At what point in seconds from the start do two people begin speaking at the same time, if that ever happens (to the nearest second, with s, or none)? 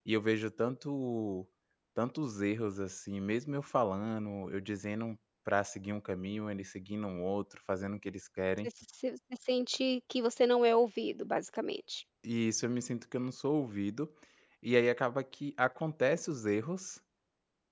none